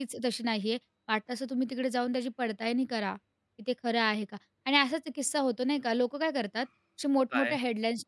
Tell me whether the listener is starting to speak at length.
No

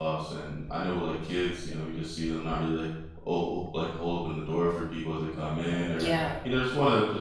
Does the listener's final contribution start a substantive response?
No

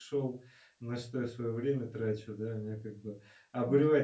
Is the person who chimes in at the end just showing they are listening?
Yes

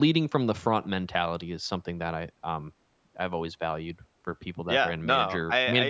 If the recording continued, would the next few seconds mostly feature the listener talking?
Yes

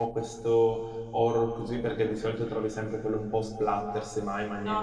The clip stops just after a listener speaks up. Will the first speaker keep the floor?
No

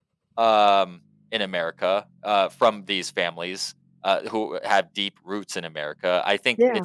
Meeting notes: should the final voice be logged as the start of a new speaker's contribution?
No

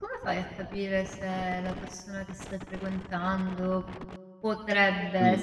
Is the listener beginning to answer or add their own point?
No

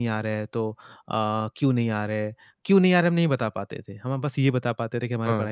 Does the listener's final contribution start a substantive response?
No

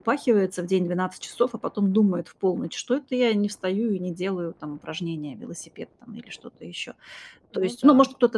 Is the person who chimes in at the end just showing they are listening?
Yes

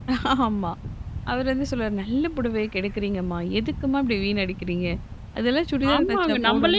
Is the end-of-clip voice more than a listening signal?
Yes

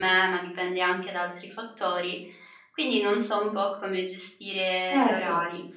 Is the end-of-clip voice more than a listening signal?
Yes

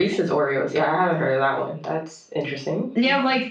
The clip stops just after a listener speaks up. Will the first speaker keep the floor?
No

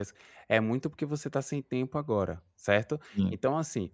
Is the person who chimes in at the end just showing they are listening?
Yes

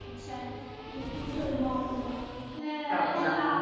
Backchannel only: Yes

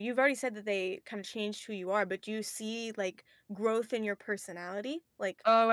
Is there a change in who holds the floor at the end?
Yes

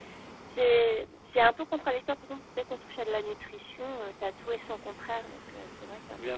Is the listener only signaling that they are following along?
No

